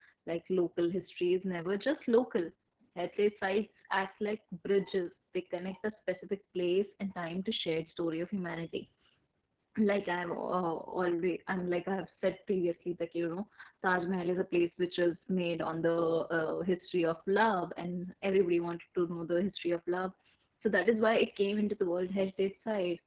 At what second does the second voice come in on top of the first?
none

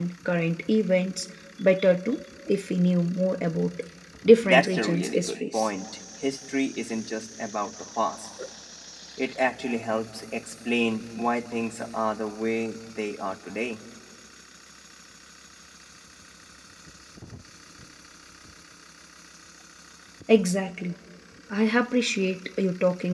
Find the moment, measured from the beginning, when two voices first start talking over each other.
4.4 s

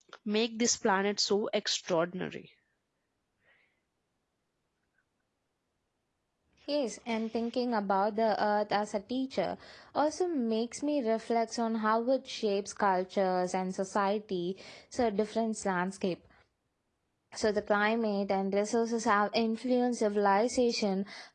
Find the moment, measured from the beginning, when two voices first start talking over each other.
none

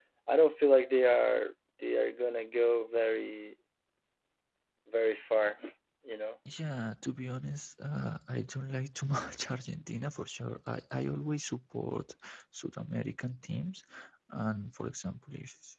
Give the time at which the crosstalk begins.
none

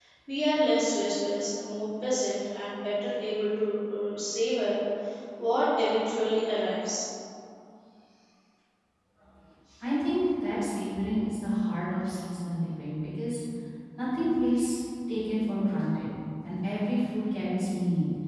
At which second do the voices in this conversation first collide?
none

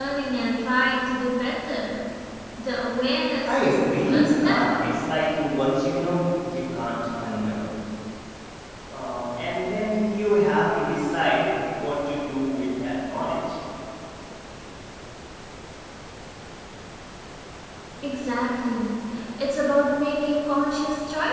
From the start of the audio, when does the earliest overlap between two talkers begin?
3.5 s

